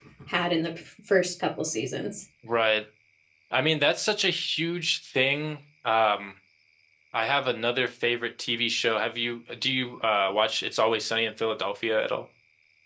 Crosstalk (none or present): none